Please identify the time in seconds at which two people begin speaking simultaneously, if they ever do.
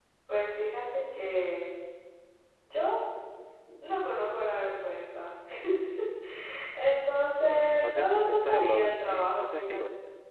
7.8 s

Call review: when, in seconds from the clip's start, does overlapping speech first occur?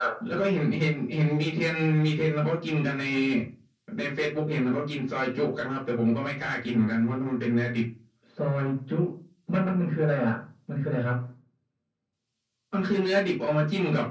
none

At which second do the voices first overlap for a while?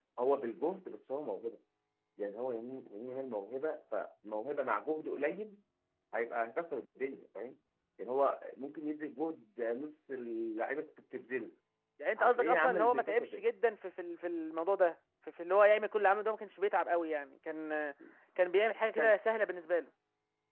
12.2 s

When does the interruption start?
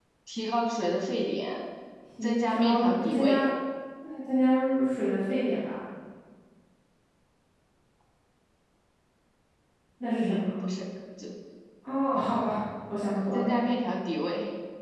2.2 s

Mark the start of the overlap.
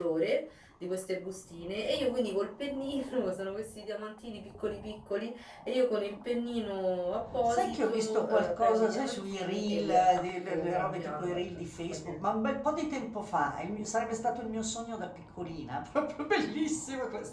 7.5 s

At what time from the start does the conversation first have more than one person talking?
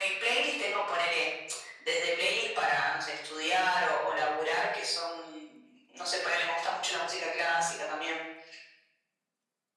none

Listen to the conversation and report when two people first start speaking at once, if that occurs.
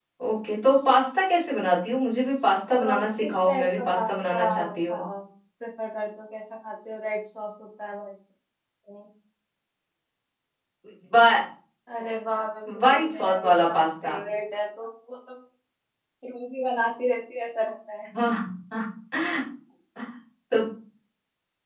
2.8 s

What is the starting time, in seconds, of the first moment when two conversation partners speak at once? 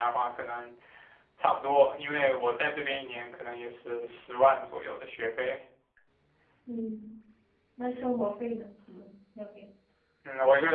none

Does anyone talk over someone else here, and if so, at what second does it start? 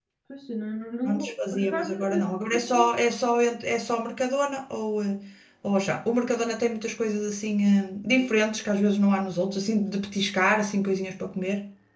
1.1 s

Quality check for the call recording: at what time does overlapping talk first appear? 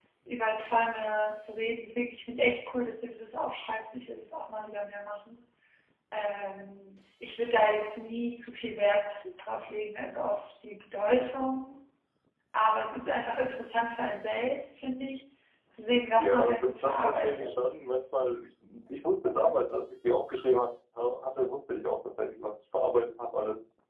16.1 s

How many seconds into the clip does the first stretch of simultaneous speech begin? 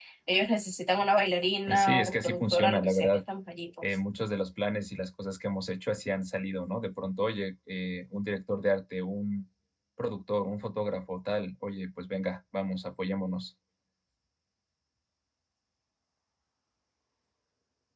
1.7 s

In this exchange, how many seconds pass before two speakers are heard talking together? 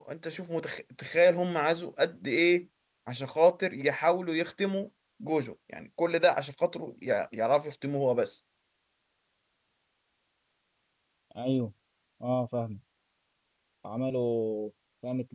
none

